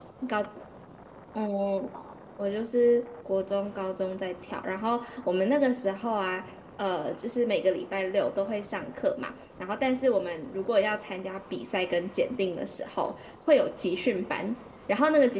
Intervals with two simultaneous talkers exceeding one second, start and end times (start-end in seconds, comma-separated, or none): none